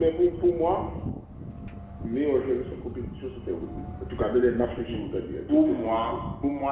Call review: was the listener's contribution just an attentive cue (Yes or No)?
No